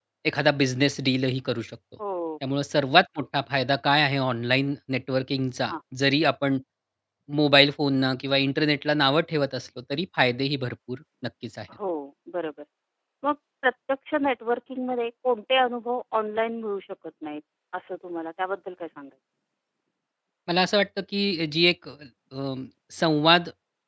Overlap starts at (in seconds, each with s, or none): none